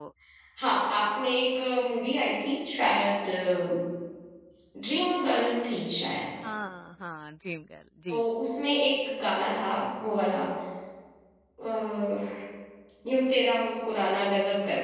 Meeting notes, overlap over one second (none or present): none